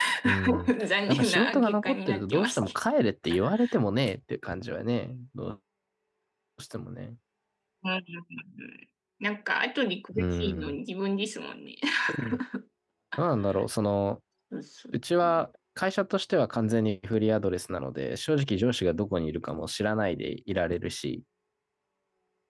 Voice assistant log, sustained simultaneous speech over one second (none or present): present